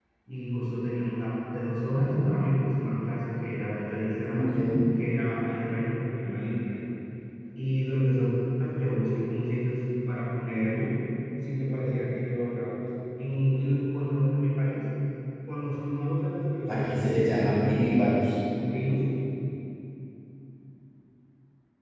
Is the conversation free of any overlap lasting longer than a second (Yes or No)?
No